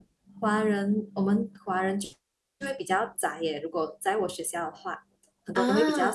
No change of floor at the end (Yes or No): Yes